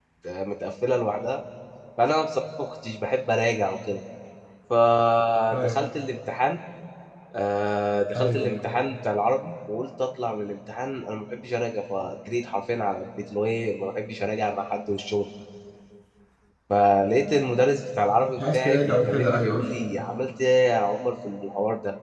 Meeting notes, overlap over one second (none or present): present